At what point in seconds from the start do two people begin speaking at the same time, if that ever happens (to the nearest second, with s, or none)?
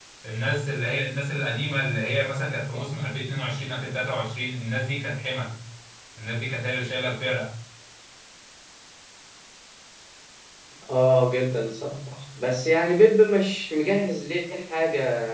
none